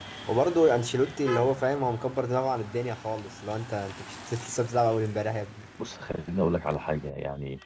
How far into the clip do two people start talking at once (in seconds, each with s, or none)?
none